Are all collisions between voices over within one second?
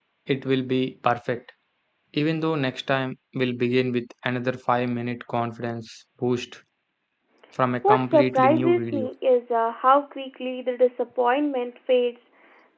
No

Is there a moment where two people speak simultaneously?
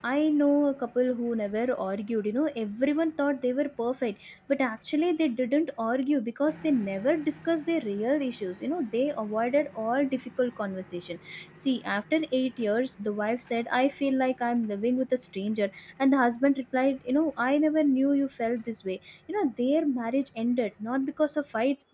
No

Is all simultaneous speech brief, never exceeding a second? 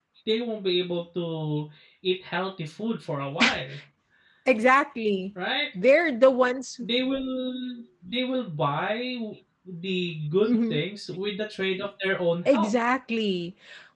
Yes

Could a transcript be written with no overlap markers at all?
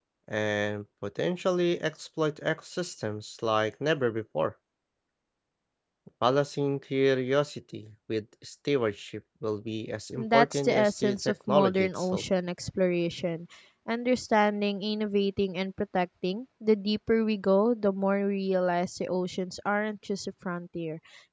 No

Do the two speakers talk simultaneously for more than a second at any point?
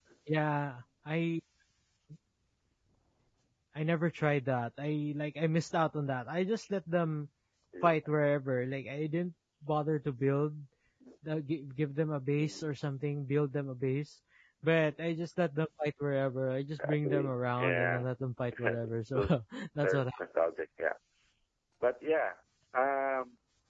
Yes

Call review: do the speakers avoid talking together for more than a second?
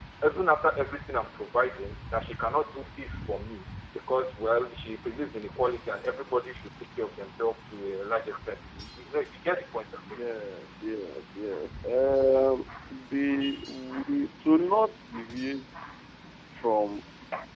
Yes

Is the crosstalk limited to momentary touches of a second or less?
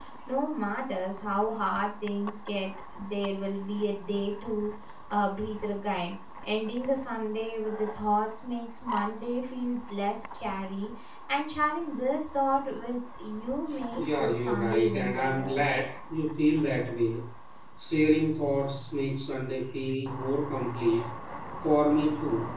No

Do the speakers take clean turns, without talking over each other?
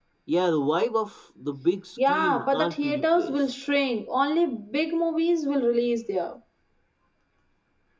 No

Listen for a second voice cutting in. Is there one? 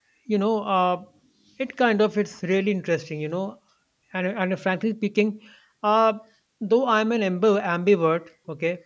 No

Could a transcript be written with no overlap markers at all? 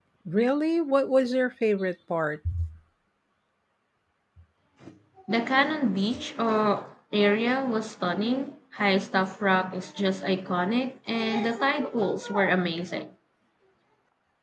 Yes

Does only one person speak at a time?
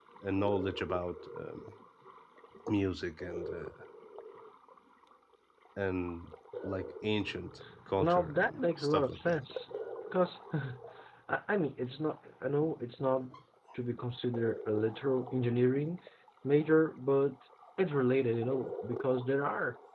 No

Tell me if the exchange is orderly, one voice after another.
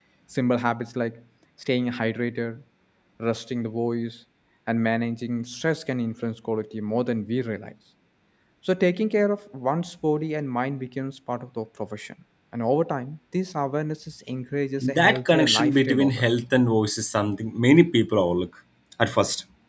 No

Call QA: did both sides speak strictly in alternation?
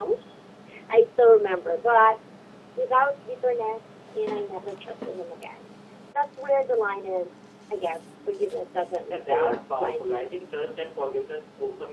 No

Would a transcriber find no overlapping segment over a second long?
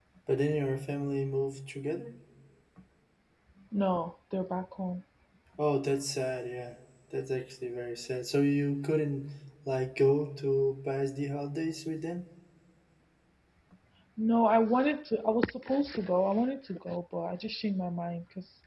Yes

